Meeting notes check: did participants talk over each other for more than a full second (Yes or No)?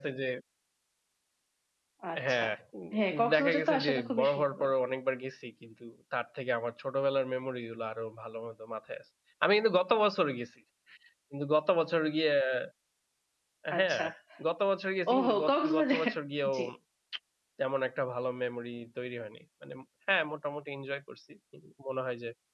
Yes